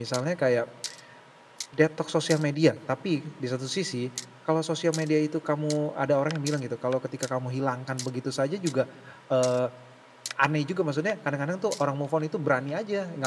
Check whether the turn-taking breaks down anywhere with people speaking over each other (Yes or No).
No